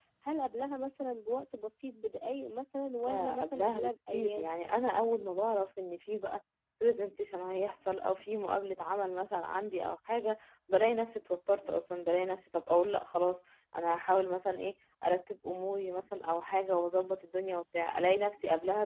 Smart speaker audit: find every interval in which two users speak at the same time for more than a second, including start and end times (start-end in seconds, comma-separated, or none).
3.0-4.6